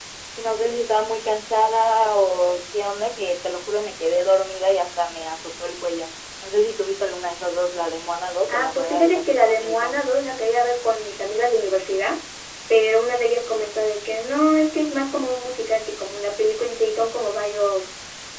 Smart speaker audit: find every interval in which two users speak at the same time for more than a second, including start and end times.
8.5-9.9

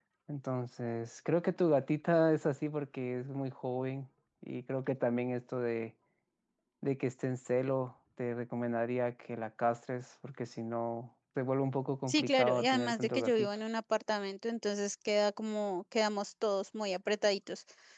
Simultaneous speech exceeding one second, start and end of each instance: 12.1-13.5

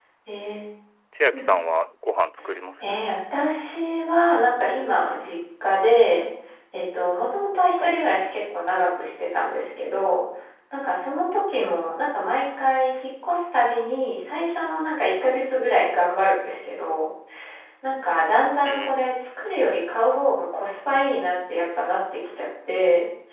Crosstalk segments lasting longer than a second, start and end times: none

